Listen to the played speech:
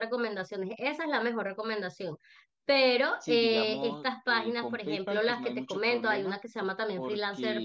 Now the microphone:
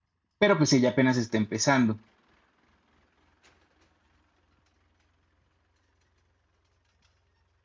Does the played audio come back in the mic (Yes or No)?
No